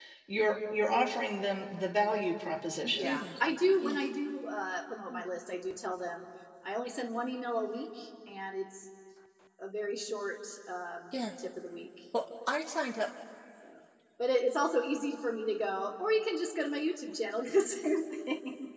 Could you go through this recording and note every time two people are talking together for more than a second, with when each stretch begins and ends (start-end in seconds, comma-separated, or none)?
none